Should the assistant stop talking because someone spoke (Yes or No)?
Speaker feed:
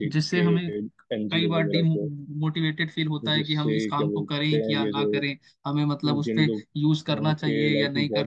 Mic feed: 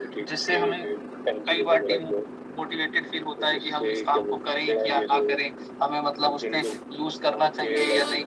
No